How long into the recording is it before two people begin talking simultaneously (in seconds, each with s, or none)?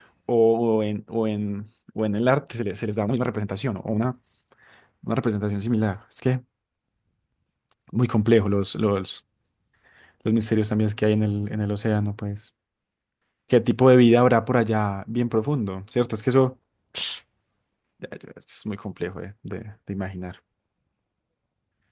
none